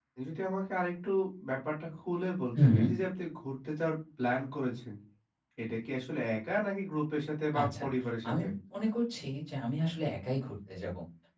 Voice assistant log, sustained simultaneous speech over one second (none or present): none